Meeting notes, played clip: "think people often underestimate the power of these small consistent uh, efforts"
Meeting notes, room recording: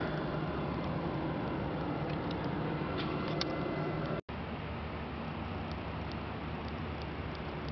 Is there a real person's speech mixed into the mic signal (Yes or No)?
No